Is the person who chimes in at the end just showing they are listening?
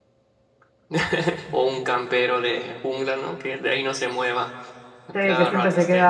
No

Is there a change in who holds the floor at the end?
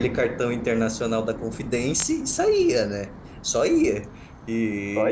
No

